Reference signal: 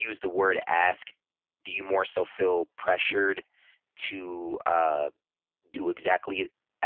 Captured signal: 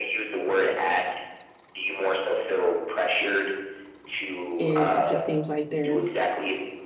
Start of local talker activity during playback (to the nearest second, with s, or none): 5 s